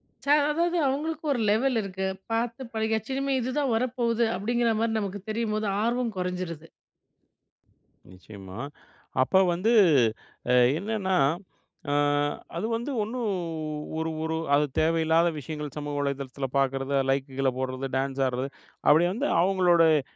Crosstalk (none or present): none